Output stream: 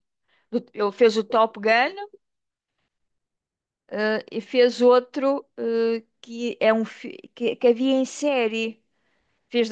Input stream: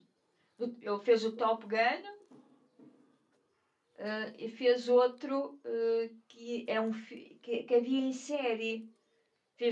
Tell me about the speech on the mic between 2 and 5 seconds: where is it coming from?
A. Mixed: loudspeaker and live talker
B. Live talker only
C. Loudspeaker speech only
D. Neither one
C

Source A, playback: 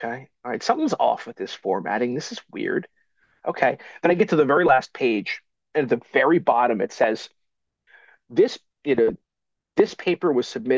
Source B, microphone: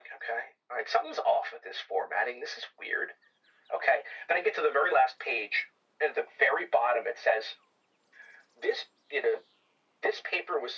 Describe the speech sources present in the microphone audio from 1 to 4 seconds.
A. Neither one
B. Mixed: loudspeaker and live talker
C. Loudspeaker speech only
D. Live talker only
C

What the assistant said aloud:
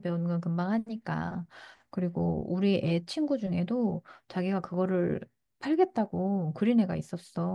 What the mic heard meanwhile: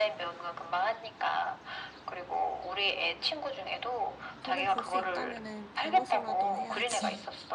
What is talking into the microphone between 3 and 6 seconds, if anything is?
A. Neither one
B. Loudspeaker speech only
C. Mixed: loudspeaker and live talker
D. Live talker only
C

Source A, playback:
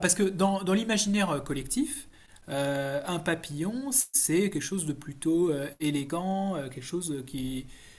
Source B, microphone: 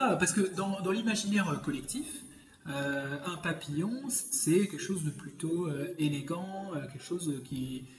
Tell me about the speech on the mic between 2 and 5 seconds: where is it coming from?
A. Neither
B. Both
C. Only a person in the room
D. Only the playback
D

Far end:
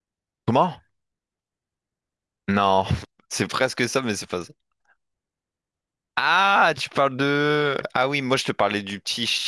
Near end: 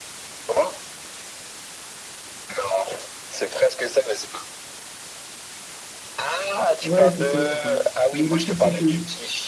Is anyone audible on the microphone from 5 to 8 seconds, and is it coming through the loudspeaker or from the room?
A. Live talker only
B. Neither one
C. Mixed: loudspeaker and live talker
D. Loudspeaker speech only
C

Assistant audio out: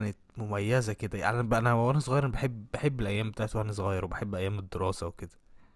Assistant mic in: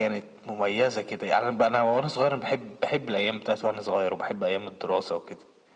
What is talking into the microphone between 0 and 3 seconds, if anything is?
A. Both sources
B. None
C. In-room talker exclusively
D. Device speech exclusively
D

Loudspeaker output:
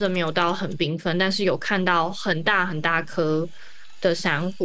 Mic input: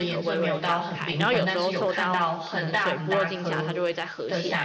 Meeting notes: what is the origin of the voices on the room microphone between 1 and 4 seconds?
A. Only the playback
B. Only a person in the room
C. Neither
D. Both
D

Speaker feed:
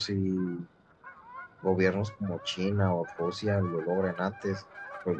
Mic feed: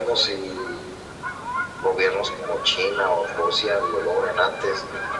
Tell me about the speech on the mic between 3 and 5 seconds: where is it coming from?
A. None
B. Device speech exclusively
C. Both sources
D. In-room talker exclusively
B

